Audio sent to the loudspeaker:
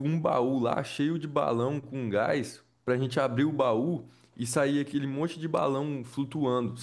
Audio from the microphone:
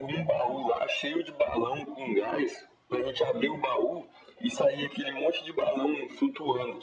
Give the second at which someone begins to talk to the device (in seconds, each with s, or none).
none